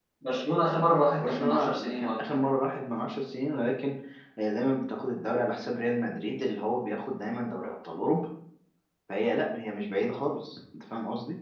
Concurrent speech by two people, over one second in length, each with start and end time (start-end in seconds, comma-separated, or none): 1.1-2.5